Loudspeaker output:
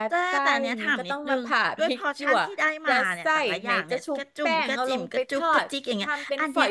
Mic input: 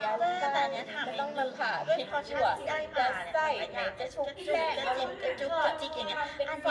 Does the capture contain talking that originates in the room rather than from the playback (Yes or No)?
Yes